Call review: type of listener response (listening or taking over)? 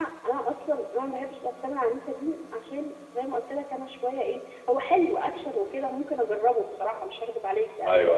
listening